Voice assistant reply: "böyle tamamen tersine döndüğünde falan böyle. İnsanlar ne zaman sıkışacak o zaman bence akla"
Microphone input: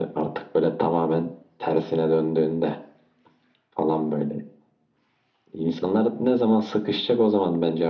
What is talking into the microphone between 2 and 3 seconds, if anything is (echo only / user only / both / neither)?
echo only